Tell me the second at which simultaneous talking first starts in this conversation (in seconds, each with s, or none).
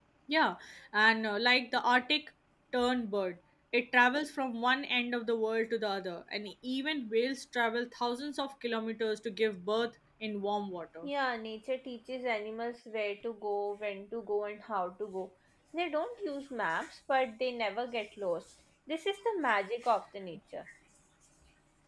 none